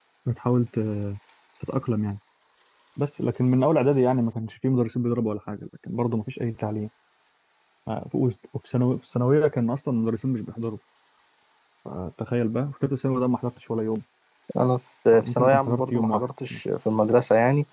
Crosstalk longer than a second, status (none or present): present